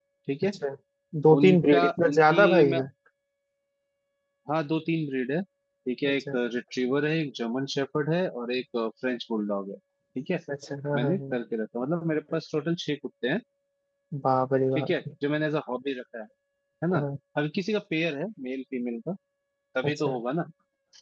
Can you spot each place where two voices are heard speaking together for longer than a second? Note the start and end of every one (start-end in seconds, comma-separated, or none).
1.4-2.7